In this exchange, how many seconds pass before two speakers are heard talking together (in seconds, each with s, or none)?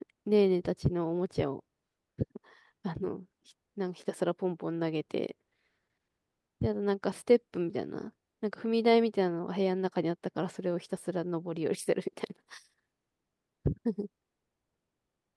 none